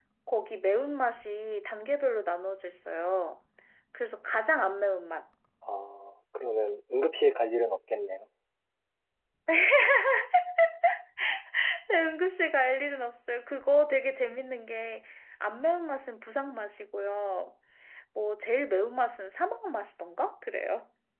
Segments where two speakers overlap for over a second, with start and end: none

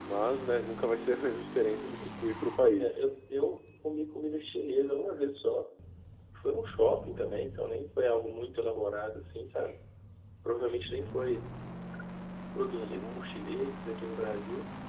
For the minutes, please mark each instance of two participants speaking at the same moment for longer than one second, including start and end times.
none

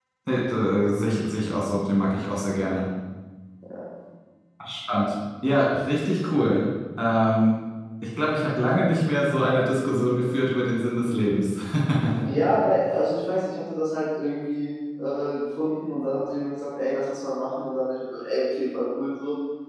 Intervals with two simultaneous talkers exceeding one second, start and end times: none

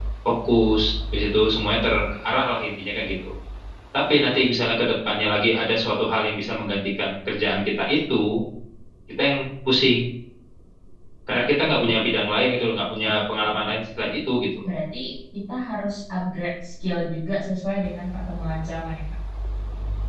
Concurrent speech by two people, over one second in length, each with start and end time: none

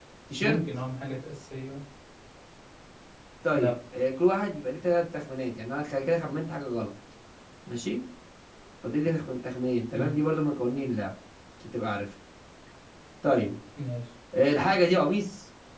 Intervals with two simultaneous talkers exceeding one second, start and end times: none

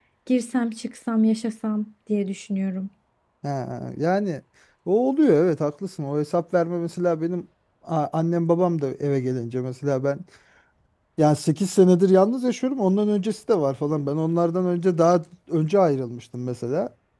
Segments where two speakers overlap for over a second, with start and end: none

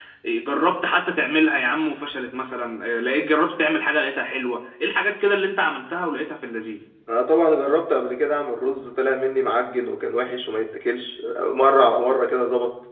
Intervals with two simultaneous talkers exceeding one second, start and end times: none

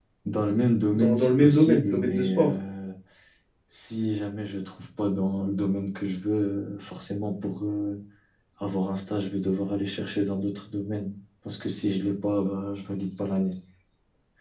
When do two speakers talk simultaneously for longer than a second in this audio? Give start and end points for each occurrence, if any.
0.9-2.5

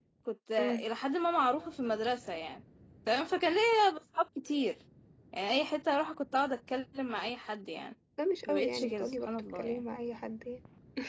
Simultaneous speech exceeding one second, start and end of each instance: 8.5-9.8

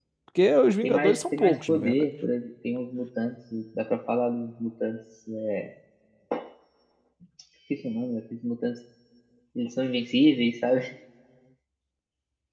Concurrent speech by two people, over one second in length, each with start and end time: 0.8-2.0

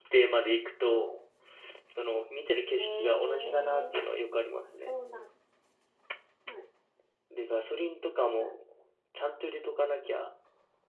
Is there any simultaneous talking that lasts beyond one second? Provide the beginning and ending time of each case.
2.7-4.0

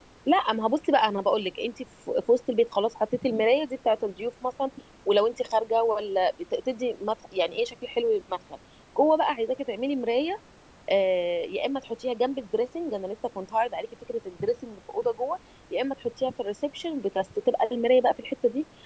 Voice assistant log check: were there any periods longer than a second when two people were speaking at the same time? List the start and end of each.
none

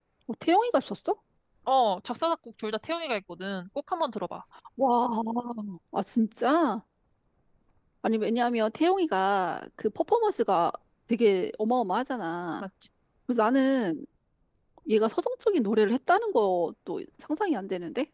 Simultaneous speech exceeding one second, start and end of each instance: none

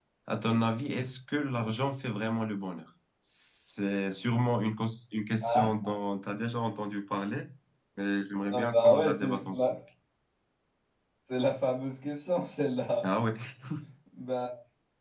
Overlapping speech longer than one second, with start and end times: 8.5-9.7

